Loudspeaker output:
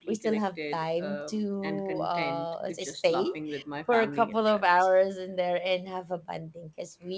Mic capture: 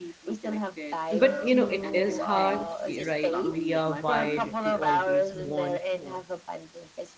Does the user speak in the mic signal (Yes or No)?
Yes